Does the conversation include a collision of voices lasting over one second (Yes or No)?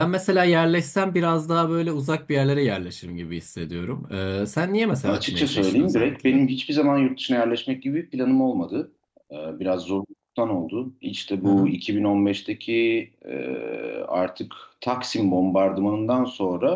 Yes